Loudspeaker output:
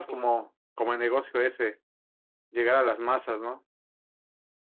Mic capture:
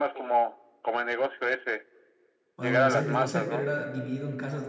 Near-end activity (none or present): present